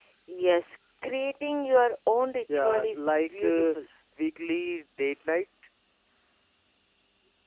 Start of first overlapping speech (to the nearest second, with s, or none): 2 s